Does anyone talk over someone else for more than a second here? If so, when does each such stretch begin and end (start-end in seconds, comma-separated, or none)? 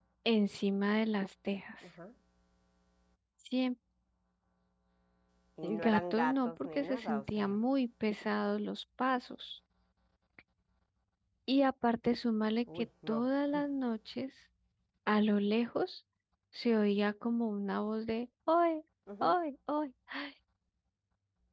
5.9-7.6